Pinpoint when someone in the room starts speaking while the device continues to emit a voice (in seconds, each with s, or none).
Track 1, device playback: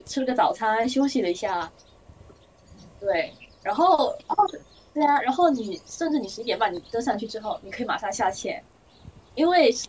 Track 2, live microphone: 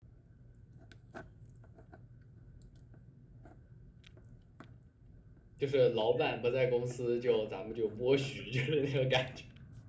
5.6 s